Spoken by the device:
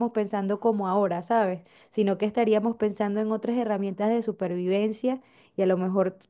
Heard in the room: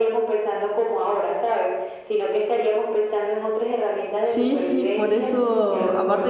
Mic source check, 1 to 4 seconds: echo only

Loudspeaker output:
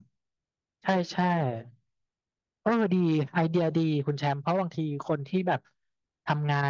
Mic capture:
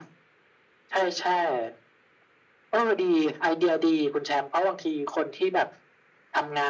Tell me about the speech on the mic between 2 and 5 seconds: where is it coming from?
echo only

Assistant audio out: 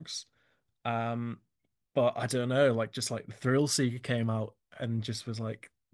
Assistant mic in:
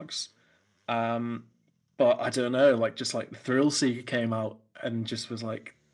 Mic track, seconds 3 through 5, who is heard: echo only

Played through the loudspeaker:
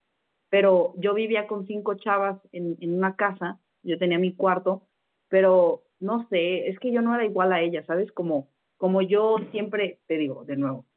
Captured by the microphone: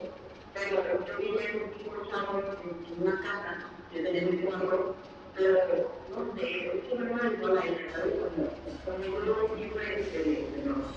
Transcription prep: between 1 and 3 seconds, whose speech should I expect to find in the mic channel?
echo only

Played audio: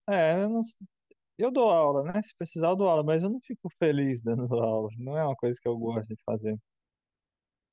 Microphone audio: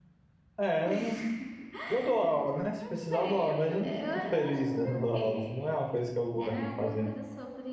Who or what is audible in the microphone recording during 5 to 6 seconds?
both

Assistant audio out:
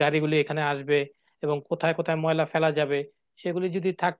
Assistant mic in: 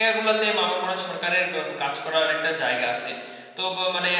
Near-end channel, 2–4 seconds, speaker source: user only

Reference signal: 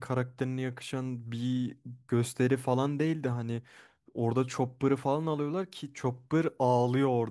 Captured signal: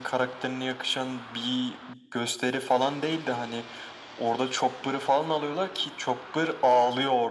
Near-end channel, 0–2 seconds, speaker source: echo only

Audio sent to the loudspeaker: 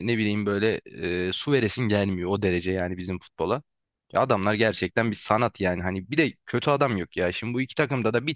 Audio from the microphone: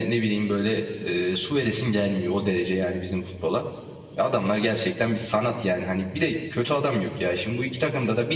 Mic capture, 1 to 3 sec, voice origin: echo only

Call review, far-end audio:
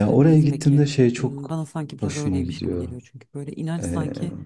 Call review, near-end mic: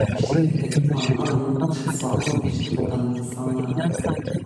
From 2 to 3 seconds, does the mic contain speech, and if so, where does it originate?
both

